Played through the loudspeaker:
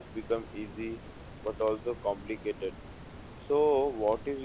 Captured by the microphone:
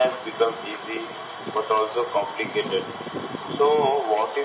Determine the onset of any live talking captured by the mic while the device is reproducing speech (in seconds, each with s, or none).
none